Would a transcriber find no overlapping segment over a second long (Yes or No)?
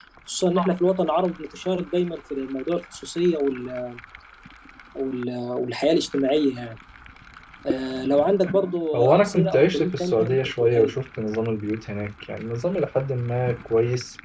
No